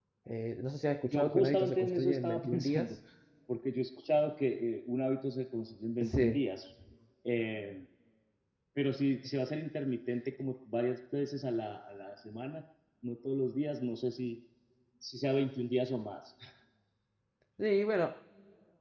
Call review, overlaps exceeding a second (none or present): present